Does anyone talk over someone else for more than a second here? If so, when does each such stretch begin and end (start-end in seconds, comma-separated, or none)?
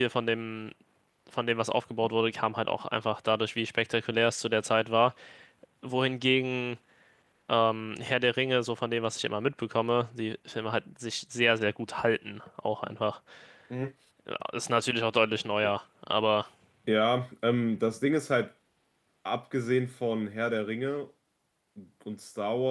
none